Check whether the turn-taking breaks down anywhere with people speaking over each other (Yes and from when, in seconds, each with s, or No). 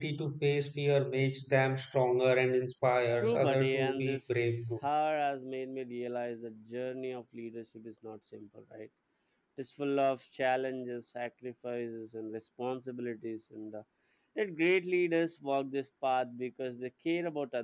Yes, from 3.2 s